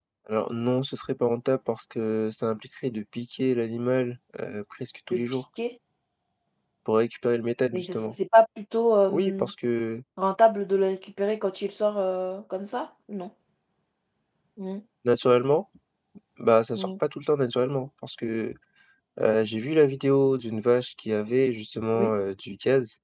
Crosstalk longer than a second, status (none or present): none